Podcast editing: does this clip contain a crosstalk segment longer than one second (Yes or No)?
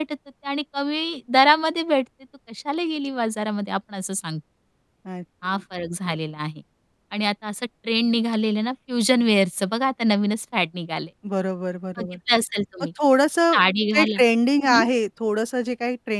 No